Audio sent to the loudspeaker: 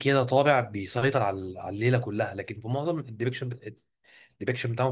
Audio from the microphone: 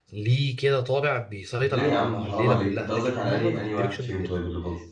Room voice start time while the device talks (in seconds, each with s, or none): 1.6 s